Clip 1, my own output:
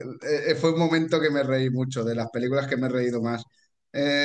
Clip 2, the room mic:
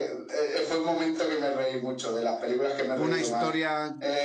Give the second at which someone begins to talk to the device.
2.9 s

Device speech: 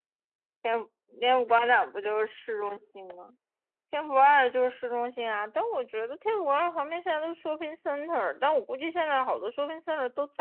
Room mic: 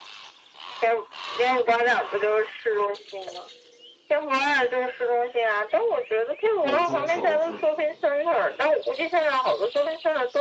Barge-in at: 6.6 s

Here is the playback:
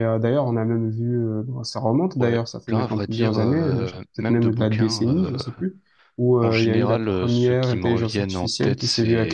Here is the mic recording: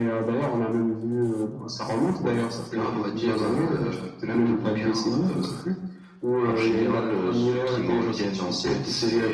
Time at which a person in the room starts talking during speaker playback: none

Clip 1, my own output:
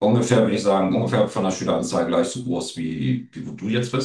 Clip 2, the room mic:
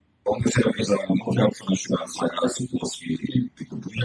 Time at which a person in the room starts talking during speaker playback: none

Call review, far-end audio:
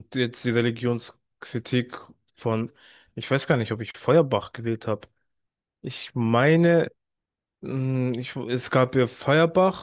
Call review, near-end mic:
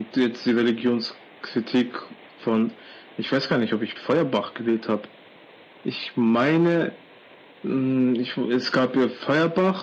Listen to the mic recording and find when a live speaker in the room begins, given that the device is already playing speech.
none

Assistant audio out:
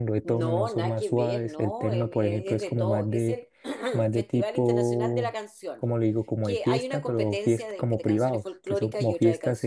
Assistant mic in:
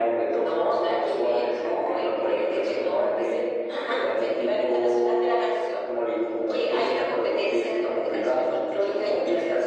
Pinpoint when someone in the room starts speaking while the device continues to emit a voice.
none

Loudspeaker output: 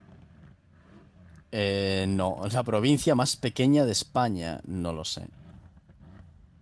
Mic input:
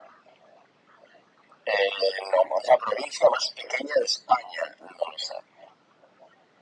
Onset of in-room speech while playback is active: none

